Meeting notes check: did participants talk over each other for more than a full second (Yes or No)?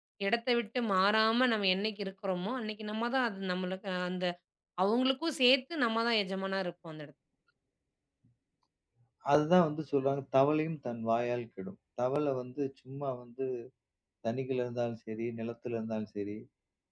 No